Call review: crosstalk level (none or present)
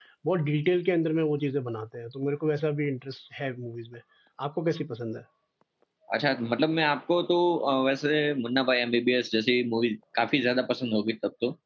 none